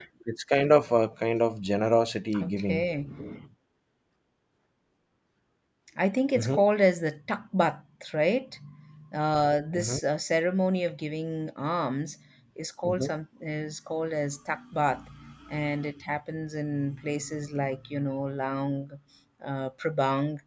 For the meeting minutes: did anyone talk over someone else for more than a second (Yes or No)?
No